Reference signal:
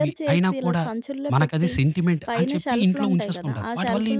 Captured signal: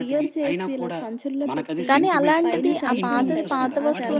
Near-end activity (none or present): present